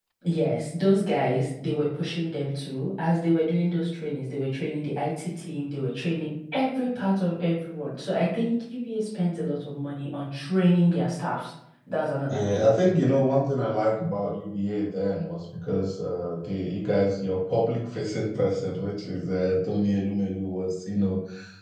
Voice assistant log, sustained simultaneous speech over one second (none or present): none